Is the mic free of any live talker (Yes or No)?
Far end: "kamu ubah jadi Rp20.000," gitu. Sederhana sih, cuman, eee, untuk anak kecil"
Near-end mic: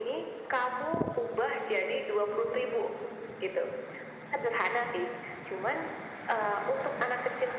Yes